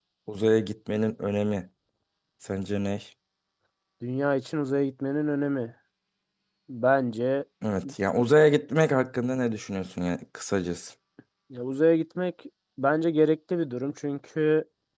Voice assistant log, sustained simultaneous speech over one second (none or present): none